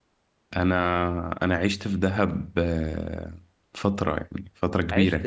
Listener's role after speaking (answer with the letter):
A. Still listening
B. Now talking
A